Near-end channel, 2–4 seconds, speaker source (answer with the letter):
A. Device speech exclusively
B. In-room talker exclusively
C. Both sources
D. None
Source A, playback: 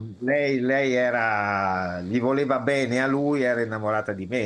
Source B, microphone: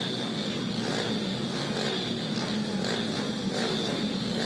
D